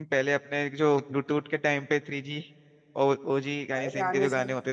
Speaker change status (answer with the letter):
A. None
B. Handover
B